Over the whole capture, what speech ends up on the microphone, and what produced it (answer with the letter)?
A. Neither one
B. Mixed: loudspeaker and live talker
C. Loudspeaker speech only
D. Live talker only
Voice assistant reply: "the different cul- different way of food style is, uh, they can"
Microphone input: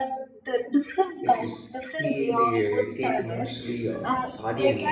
B